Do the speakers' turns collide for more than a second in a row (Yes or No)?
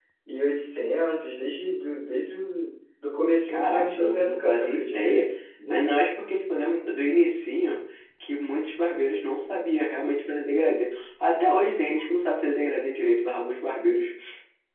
Yes